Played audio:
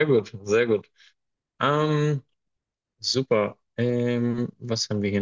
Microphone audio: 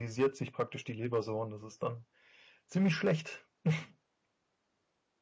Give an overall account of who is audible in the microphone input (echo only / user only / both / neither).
user only